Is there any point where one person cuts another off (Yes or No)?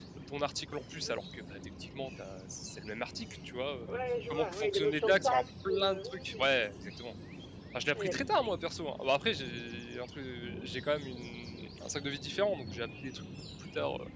Yes